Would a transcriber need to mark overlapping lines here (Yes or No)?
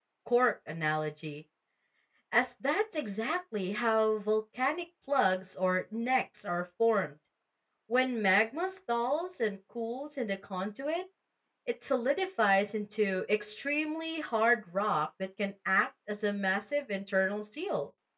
No